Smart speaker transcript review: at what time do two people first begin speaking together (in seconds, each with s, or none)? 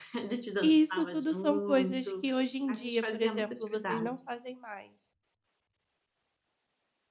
0.6 s